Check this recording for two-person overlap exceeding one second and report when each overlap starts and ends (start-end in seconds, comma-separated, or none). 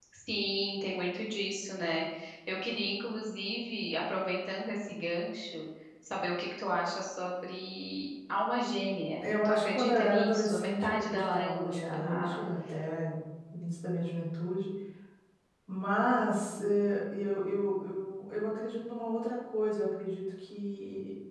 9.2-12.4